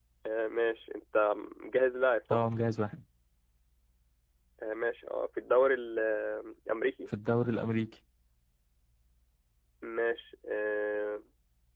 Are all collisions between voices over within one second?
Yes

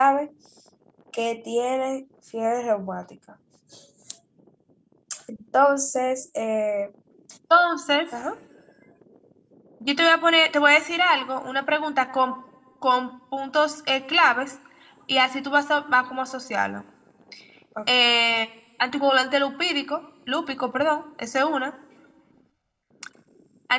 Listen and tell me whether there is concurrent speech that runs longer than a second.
No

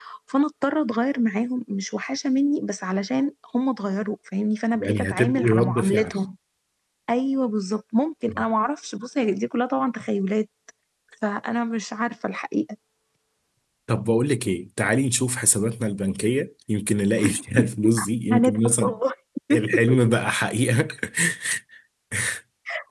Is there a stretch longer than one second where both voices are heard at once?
Yes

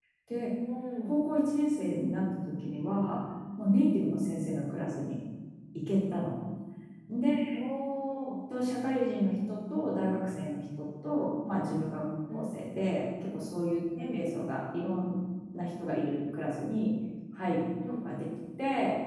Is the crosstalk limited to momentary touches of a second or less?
Yes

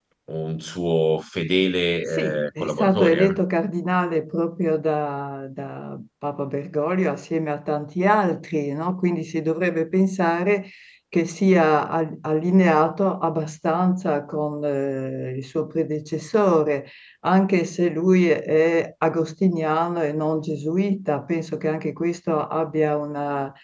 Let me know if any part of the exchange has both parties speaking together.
Yes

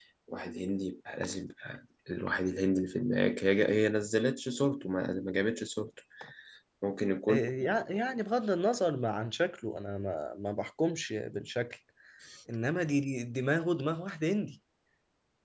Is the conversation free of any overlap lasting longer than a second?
Yes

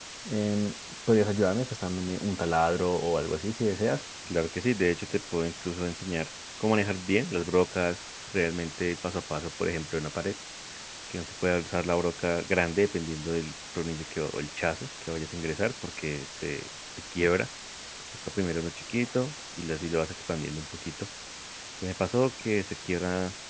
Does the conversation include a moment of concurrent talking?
No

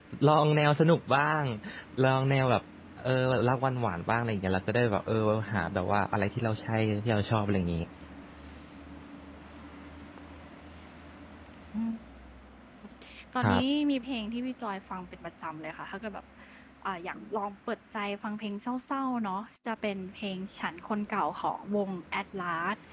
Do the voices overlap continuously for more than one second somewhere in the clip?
No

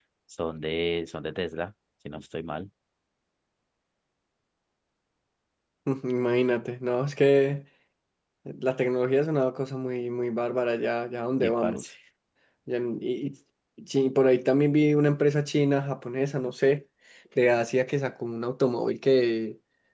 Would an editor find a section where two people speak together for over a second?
No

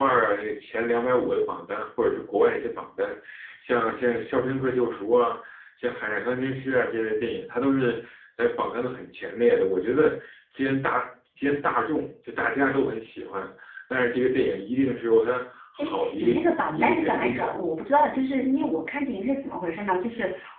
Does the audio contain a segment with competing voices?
Yes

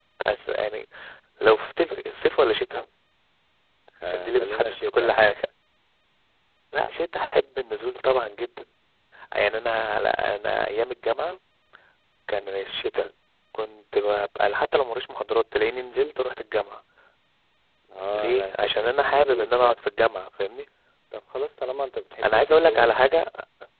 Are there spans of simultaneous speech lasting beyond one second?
Yes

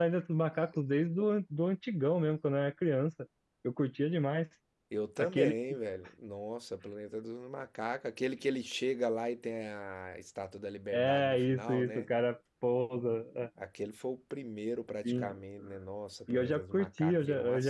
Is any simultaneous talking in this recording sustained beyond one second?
Yes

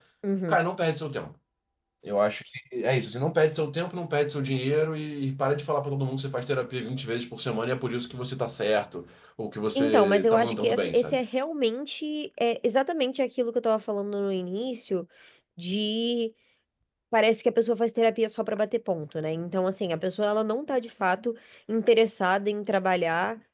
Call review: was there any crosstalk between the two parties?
Yes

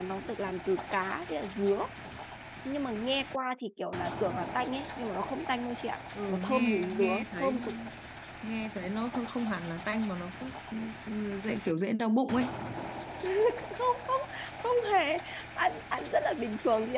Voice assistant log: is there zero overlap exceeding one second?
No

